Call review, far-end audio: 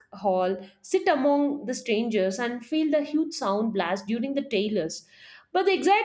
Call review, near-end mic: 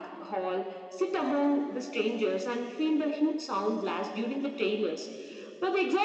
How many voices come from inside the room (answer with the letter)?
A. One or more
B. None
B